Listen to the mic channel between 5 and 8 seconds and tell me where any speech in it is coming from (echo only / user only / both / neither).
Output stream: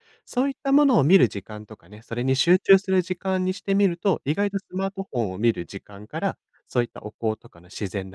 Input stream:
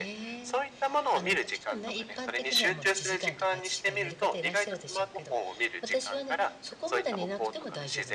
both